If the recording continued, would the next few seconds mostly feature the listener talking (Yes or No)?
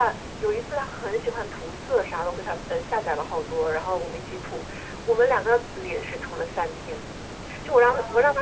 No